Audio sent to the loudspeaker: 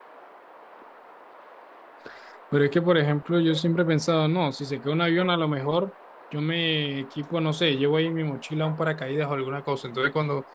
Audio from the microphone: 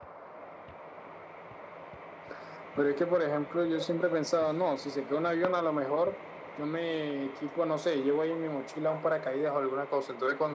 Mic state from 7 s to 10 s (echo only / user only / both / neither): echo only